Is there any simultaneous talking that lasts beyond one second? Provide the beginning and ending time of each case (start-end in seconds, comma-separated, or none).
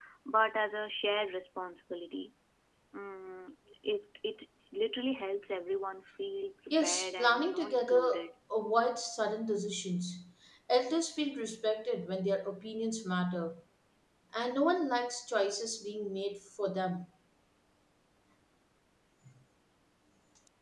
6.8-8.0